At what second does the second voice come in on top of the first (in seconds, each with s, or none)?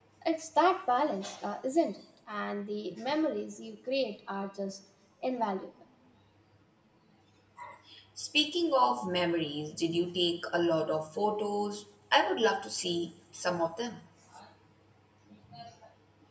none